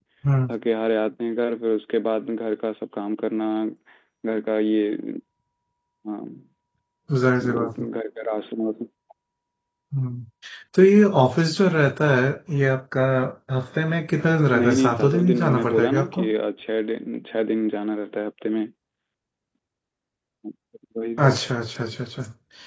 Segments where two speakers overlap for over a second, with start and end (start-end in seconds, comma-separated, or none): 14.5-16.2